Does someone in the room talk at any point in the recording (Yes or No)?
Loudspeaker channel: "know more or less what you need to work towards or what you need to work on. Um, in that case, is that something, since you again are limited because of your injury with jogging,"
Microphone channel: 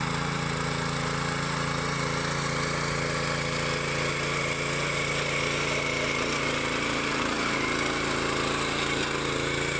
No